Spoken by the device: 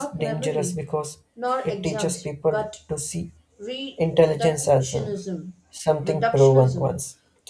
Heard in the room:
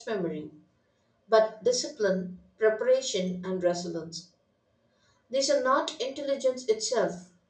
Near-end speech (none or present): present